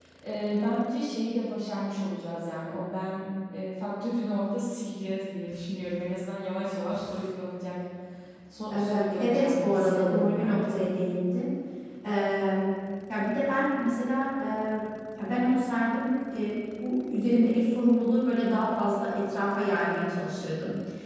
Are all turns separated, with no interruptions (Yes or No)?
No